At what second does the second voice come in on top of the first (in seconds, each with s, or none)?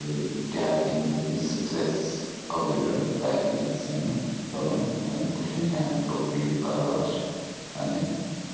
none